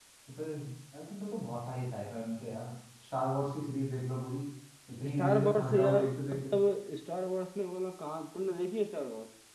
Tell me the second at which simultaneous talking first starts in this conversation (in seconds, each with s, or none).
5.2 s